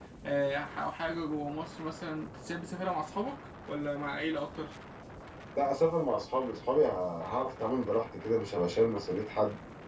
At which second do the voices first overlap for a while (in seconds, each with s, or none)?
none